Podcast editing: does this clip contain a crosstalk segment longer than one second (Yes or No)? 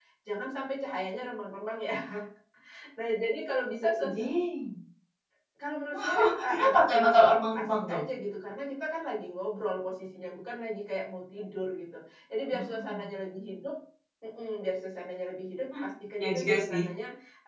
Yes